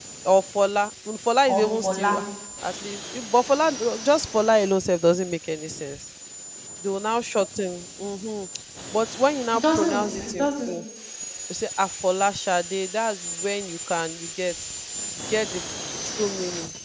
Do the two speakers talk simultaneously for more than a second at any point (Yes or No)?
Yes